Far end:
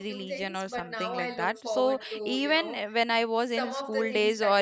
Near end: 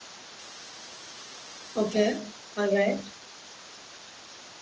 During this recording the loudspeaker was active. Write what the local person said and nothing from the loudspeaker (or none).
Okay. All right.